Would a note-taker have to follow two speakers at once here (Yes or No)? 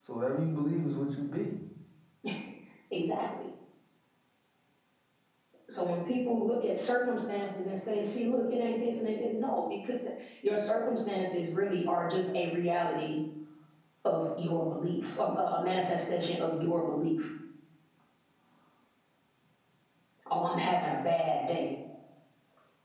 No